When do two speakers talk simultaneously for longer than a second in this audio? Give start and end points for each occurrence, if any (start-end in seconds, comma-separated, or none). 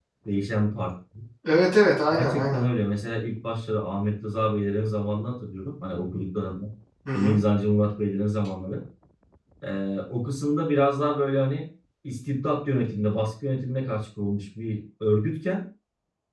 none